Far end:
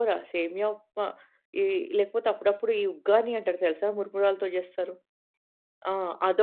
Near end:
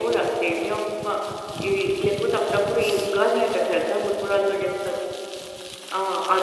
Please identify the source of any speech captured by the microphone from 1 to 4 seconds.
echo only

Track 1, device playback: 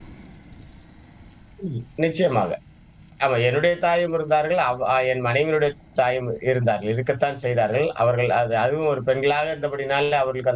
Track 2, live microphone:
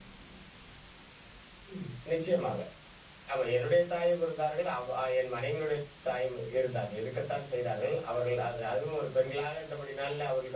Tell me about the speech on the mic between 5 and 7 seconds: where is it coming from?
echo only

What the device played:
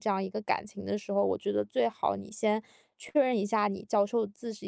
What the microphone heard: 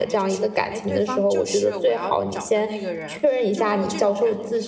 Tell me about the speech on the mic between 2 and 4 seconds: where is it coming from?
both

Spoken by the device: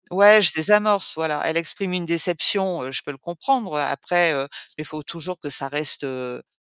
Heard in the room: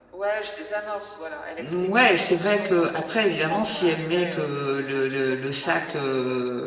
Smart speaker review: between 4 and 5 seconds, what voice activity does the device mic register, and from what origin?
both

